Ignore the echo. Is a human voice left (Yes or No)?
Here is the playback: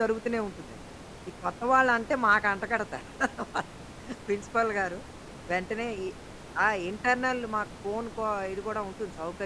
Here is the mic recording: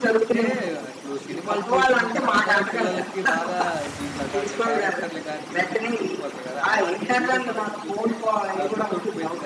Yes